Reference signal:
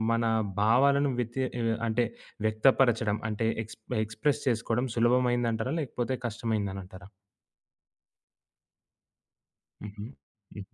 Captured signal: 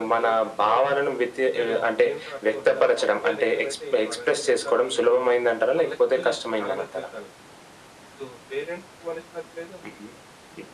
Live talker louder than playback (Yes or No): No